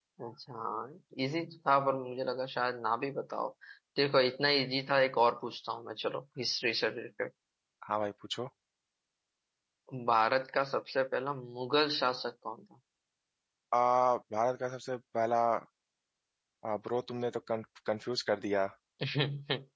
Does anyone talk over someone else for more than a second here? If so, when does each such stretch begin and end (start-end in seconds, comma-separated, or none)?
none